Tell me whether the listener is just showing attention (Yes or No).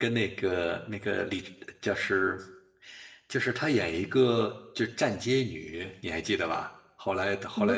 Yes